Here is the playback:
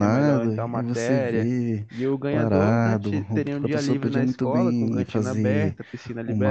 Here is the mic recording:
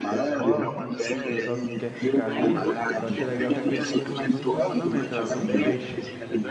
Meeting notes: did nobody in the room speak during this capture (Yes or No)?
No